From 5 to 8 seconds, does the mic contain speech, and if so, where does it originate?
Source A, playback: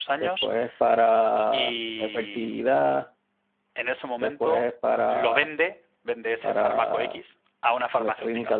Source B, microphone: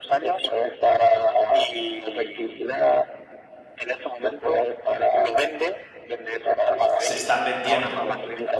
both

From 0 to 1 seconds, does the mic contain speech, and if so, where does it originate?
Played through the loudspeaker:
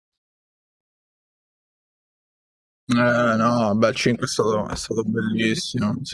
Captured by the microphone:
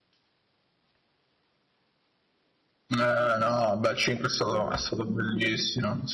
neither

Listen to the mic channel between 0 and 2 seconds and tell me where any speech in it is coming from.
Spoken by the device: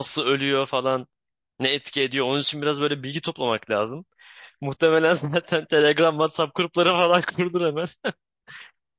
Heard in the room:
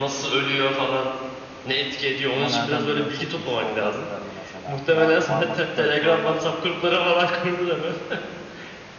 echo only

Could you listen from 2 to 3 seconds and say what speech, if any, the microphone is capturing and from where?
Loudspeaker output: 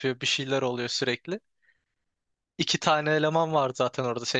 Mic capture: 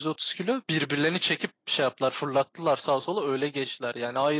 user only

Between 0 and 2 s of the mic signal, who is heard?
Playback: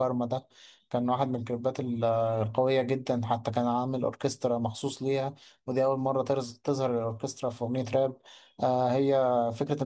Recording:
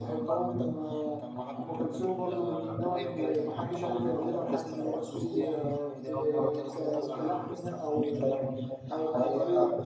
both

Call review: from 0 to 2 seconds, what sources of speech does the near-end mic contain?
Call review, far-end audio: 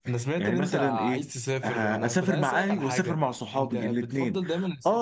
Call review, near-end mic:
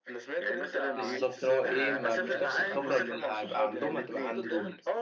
both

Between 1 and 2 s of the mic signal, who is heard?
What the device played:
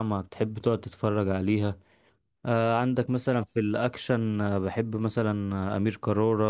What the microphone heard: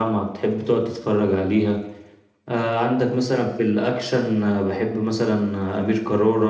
echo only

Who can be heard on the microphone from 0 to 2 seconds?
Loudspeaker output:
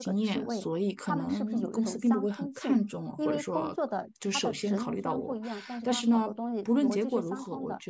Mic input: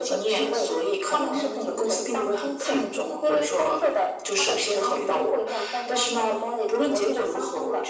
echo only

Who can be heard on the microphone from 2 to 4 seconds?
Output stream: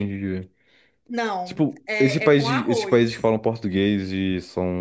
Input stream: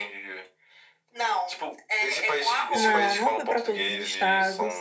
both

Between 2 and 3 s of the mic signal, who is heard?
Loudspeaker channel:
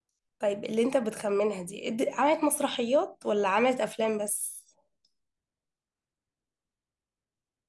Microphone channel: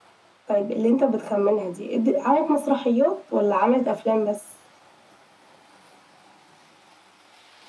echo only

